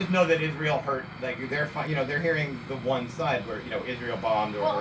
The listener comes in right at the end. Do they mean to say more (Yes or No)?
Yes